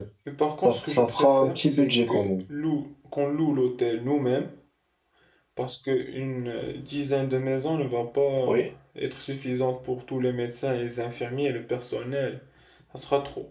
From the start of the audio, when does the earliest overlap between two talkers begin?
0.6 s

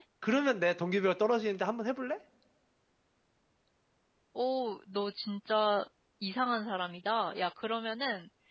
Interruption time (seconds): none

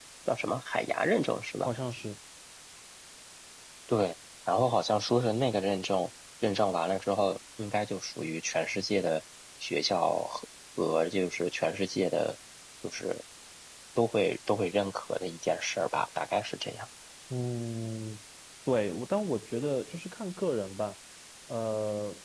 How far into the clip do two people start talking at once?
none

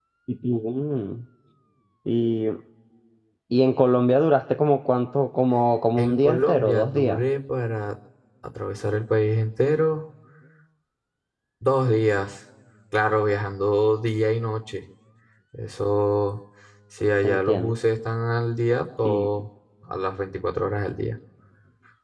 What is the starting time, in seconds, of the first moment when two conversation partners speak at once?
6.0 s

